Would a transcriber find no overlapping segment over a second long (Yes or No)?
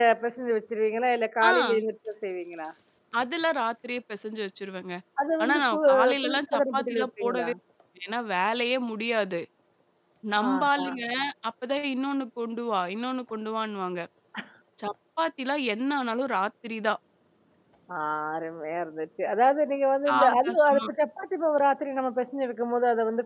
No